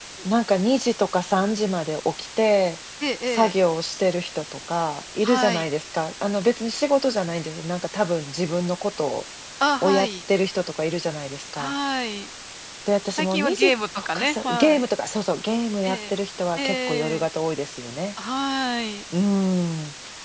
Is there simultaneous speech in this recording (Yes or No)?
Yes